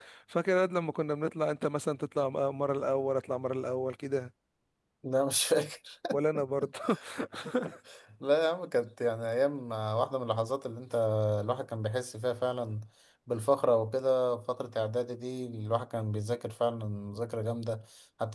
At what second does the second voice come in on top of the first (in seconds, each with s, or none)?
none